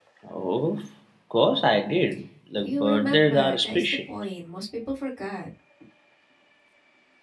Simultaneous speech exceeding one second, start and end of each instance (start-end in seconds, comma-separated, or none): 2.6-3.9